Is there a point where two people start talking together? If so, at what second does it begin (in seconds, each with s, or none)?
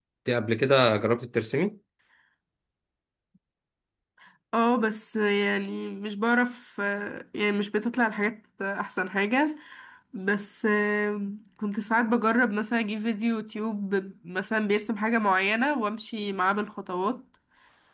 none